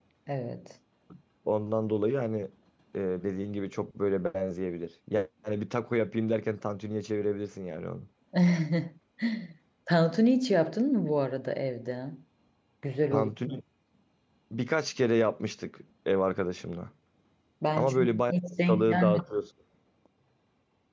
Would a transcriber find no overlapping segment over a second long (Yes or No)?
No